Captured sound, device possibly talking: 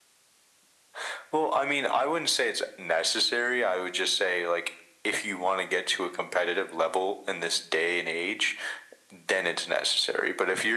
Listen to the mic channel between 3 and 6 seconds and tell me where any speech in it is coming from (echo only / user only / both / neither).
echo only